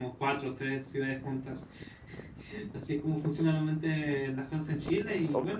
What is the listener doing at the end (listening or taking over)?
taking over